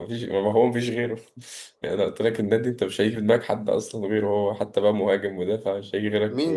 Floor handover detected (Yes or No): Yes